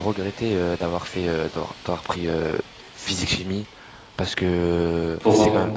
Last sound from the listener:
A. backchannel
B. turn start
A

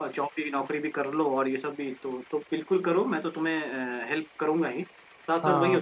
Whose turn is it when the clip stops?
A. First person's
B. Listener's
A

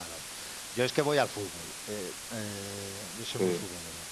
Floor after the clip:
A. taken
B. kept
B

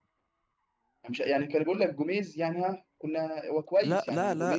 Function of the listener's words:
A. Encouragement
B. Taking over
B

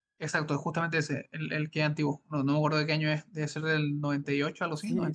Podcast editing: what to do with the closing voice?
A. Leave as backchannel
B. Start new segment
B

